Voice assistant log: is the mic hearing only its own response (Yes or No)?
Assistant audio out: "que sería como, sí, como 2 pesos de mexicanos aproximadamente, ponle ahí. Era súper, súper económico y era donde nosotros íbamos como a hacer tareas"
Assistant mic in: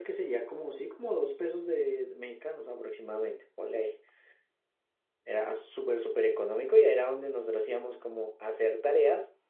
Yes